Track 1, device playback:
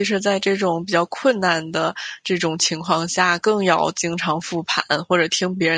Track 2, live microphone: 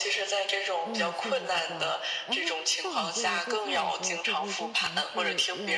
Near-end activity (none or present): present